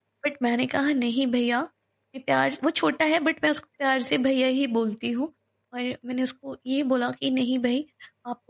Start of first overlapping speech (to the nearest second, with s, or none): none